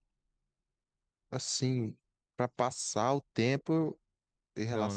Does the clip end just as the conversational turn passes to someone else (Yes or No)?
No